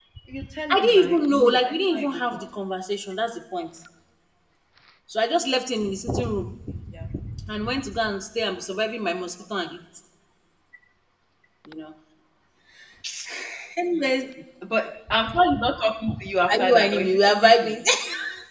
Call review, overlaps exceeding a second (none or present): present